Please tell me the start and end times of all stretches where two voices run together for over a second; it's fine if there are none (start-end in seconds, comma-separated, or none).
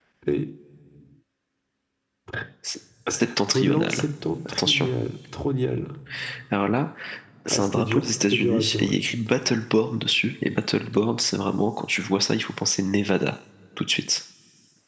7.5-8.9